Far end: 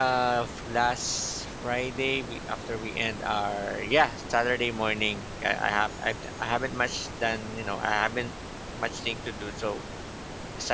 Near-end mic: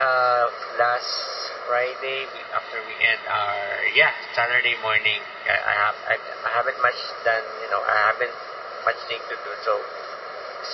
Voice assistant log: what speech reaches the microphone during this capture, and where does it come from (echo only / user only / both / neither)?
echo only